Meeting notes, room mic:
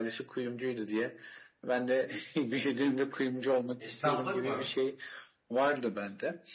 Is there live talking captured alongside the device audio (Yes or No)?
Yes